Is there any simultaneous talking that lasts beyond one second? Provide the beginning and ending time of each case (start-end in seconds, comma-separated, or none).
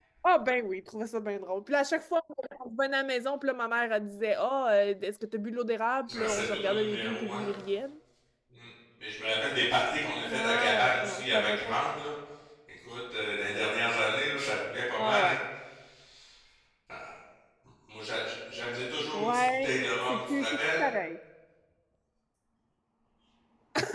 6.1-7.4, 10.3-11.8, 19.1-20.8